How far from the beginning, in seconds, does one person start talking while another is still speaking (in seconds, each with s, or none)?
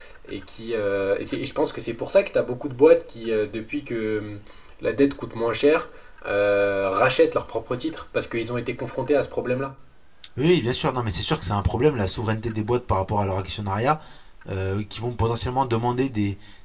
none